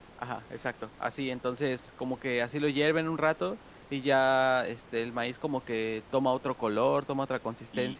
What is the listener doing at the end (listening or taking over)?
taking over